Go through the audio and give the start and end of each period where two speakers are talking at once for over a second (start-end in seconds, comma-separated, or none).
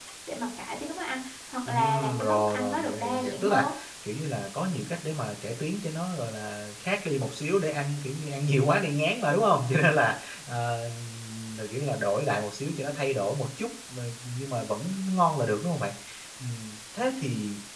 1.7-3.6